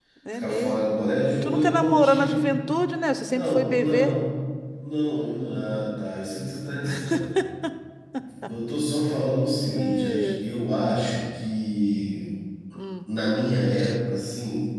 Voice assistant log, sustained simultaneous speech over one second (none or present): present